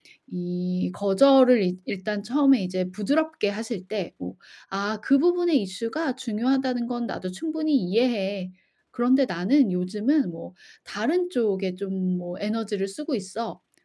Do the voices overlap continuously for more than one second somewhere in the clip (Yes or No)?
No